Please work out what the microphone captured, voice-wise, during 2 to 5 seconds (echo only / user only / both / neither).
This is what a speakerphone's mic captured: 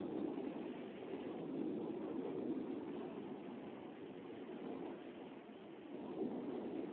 neither